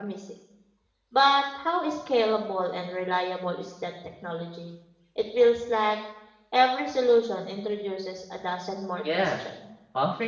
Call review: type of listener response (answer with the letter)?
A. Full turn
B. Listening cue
A